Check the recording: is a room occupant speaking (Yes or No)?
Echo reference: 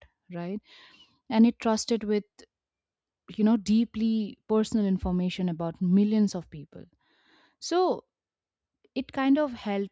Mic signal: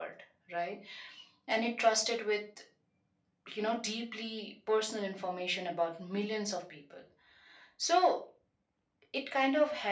No